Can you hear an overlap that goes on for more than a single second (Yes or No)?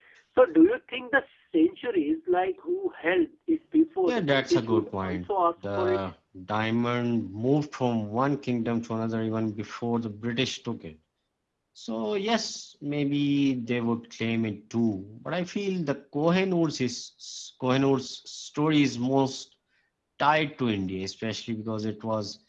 Yes